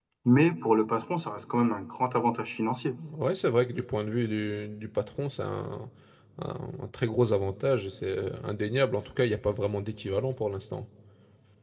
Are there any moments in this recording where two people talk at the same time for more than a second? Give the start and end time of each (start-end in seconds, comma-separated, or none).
none